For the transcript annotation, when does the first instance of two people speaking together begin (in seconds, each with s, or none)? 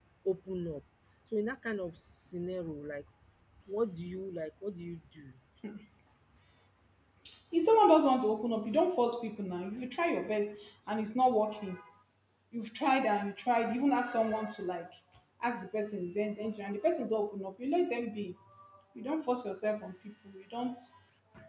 none